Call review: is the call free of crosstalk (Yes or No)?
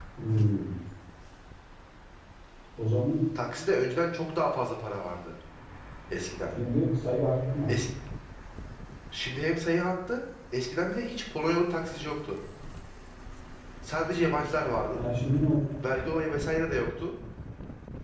Yes